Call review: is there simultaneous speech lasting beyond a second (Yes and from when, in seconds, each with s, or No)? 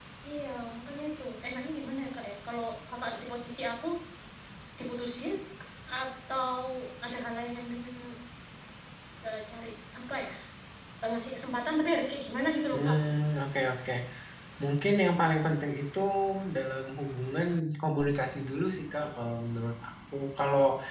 No